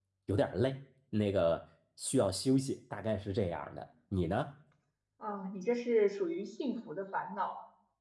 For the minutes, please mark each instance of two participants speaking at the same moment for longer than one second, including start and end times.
none

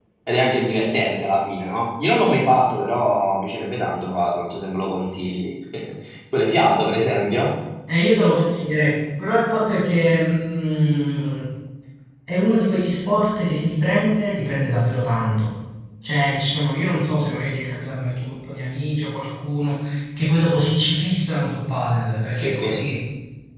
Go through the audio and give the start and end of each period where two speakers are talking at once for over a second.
none

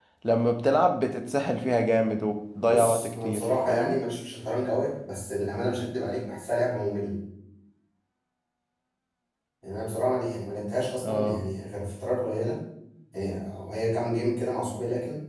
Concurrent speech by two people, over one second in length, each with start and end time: 2.6-4.0

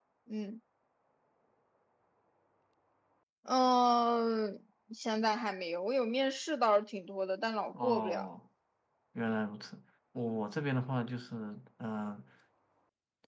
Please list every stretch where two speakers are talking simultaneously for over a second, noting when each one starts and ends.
none

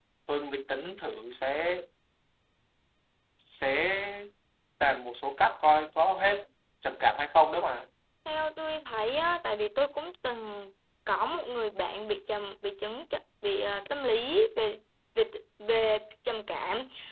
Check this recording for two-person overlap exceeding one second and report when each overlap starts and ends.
none

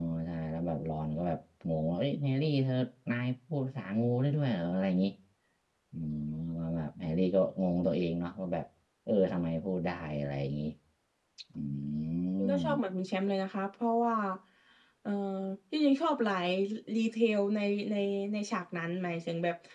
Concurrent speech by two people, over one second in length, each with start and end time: none

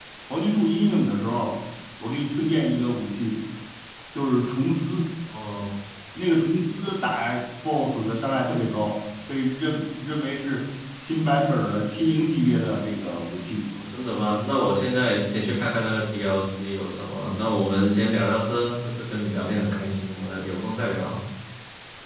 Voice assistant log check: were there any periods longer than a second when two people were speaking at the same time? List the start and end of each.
none

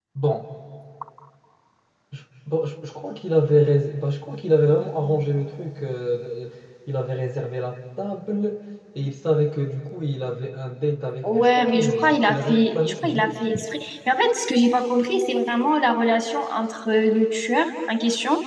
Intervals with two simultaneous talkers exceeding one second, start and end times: 11.2-13.3

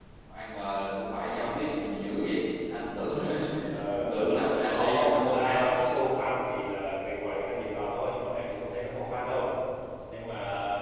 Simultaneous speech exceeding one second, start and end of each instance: 4.6-6.0

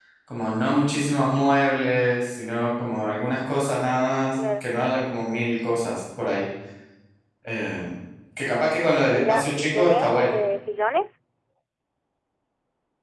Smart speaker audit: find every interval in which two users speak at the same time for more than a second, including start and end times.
9.1-10.4

